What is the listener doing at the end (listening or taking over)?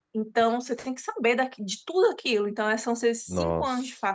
listening